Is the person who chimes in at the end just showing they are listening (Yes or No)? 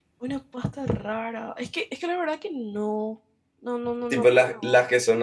No